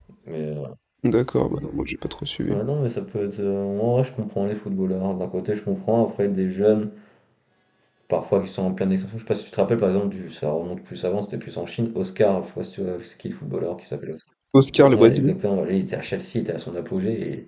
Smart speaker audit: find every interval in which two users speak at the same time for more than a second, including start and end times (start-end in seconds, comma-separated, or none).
none